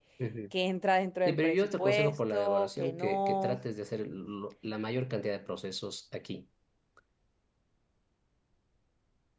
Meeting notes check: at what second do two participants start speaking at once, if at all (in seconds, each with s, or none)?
1.3 s